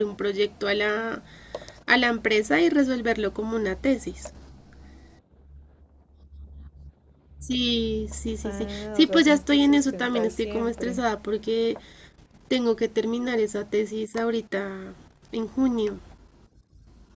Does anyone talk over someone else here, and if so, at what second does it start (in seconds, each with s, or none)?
8.4 s